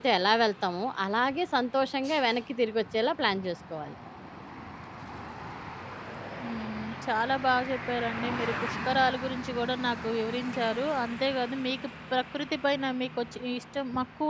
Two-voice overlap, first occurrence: none

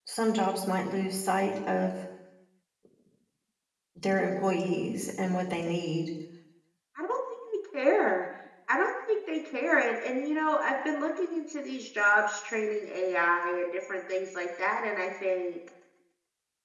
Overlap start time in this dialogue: none

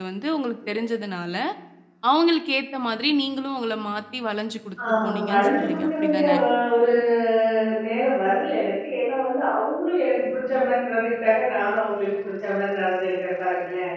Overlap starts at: 4.8 s

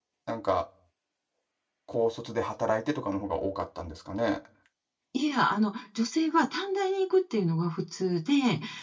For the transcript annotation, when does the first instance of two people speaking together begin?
none

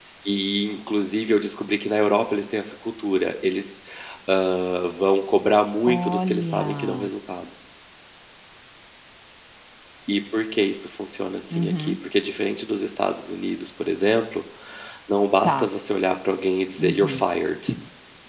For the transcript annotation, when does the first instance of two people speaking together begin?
5.9 s

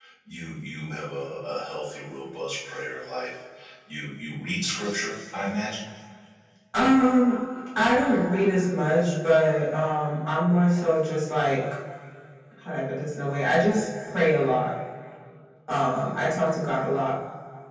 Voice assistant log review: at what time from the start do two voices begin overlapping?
none

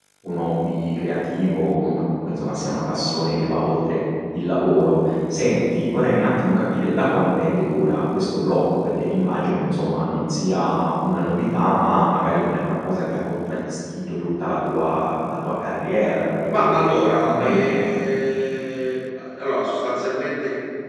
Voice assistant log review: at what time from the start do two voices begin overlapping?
16.5 s

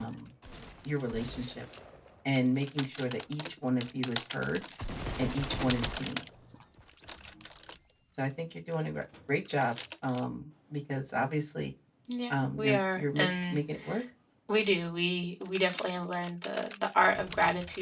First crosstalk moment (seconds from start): 12.3 s

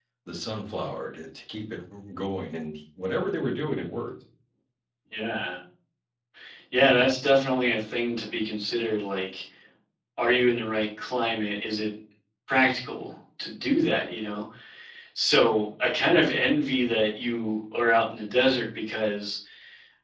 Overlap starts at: none

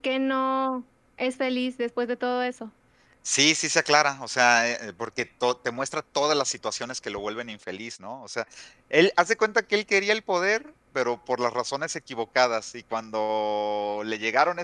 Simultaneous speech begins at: none

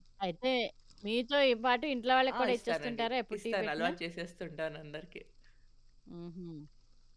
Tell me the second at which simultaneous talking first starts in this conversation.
2.3 s

